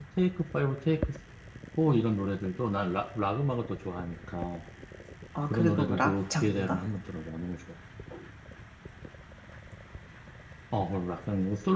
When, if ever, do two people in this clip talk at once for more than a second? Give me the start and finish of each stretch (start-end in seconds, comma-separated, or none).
5.4-6.8